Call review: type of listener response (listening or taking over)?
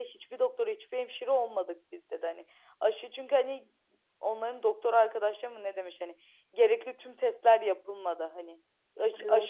listening